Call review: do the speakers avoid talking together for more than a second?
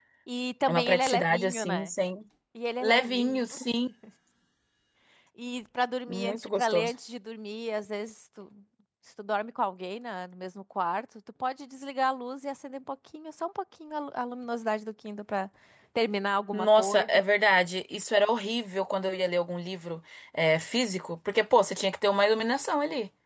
No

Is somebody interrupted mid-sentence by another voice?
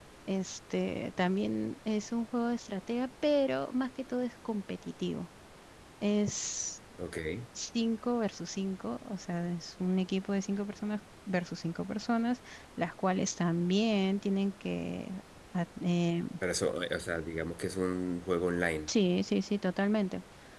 No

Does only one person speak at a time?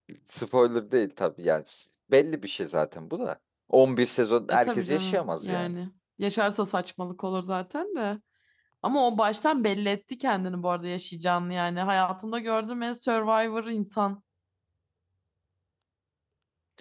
No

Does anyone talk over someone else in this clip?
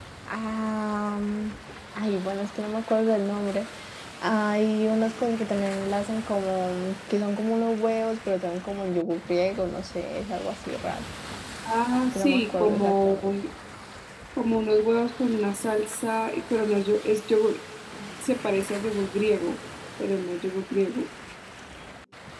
Yes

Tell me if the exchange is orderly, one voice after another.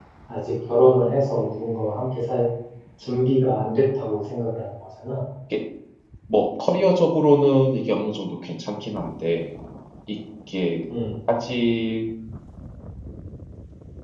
Yes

